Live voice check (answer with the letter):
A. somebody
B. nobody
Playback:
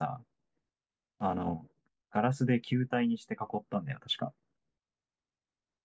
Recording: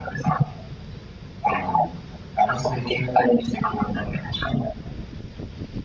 B